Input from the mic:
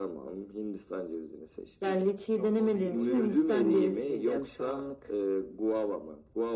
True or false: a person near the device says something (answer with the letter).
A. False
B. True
B